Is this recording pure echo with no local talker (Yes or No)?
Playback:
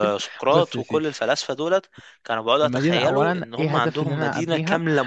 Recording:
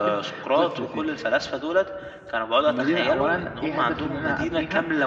Yes